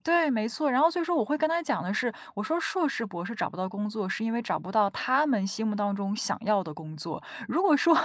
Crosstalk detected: No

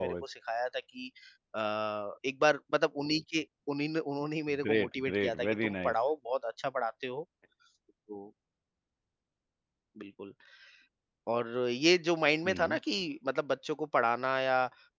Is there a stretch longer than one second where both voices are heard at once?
Yes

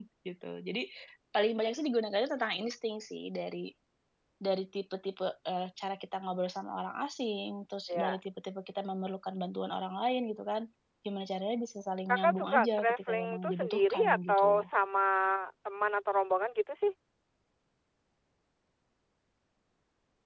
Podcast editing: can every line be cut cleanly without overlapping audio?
No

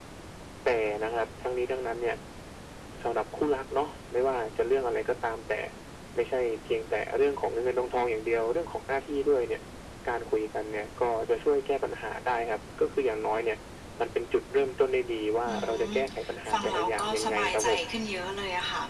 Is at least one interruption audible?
Yes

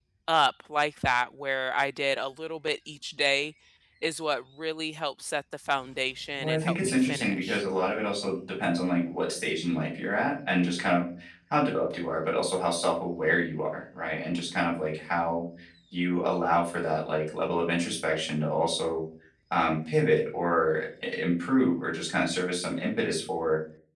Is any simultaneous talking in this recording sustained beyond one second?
Yes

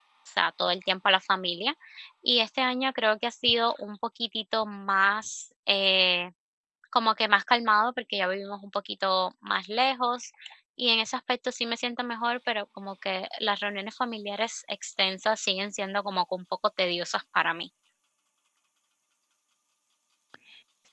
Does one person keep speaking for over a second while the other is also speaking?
No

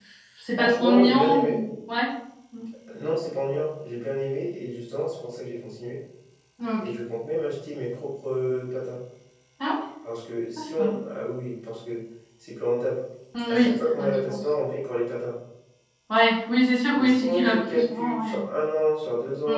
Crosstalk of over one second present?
Yes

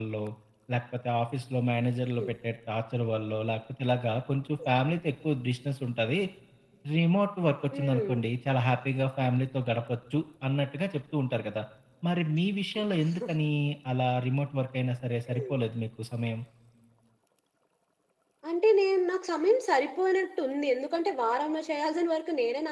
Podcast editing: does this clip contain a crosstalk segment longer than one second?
No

